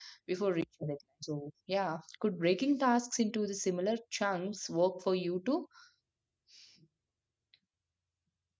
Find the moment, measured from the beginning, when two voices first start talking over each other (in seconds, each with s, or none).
none